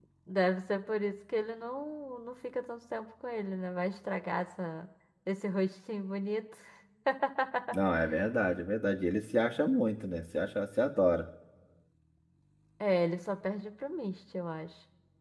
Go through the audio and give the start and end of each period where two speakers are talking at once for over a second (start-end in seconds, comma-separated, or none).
none